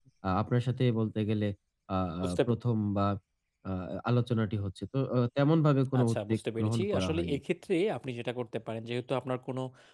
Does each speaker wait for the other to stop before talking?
No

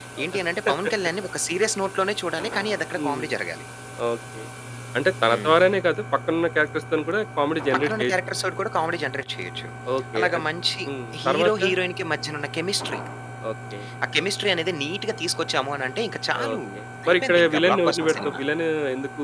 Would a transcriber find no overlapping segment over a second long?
No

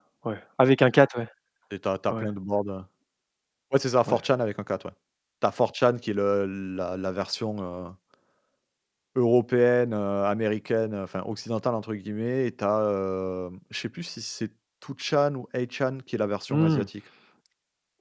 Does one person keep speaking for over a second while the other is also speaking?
No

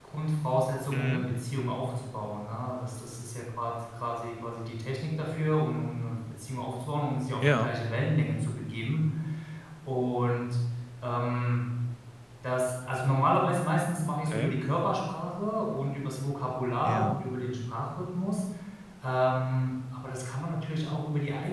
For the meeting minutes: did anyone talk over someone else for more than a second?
No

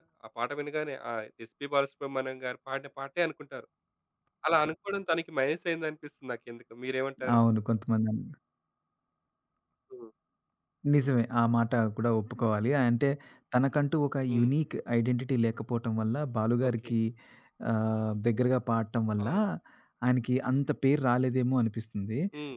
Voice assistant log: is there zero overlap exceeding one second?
Yes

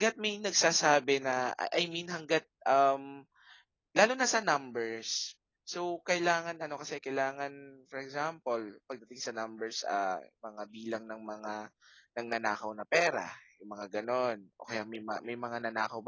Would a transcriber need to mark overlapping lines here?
No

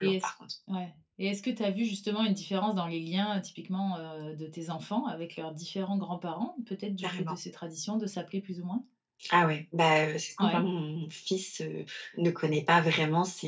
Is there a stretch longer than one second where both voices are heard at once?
No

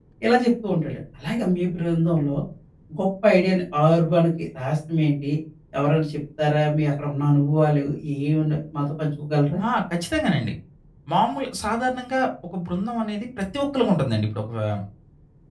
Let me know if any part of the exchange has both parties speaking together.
No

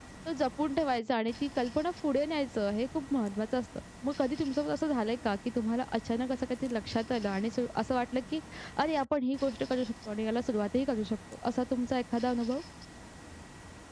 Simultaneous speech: No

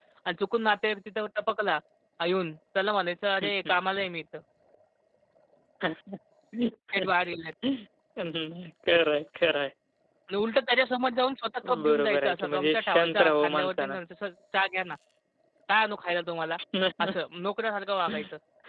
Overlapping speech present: Yes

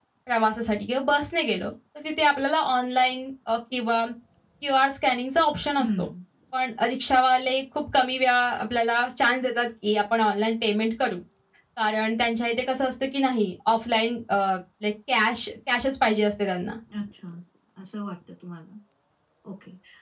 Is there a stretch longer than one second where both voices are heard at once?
No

